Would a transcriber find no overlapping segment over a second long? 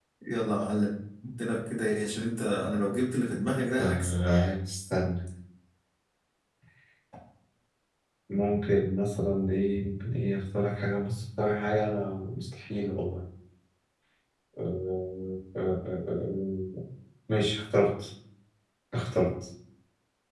Yes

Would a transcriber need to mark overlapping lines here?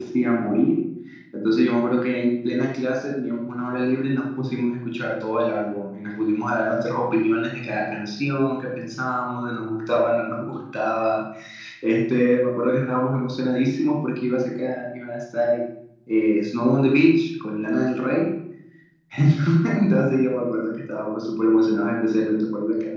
No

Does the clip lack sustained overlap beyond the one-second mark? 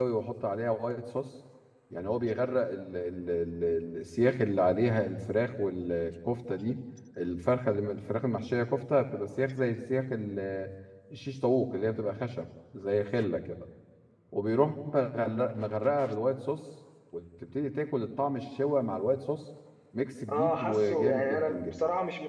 No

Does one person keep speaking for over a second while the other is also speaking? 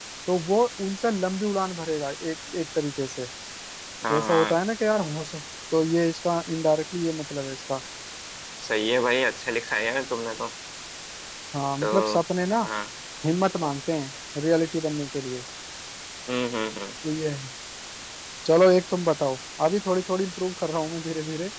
No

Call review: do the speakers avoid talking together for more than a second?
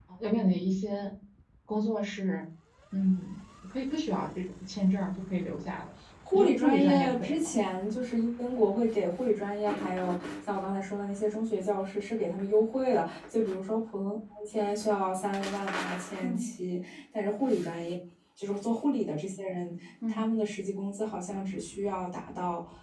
No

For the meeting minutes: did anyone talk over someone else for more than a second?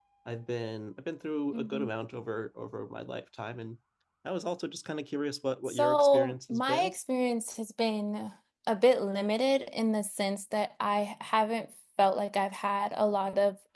Yes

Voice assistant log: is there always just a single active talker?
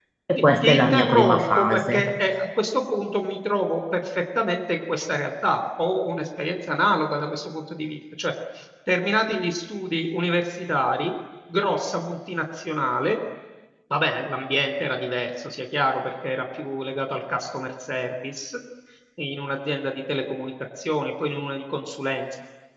No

